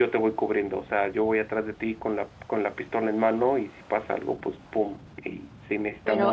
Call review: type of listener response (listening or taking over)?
taking over